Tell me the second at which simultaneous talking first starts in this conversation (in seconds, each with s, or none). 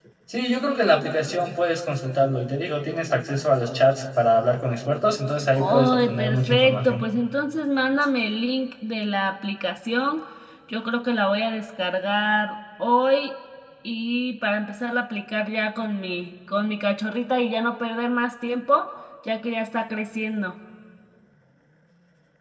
5.6 s